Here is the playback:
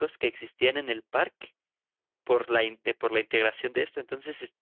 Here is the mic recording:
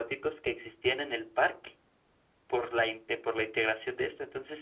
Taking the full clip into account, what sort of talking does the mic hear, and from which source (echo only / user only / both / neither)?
echo only